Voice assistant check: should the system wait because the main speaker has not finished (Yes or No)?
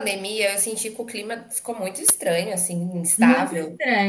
No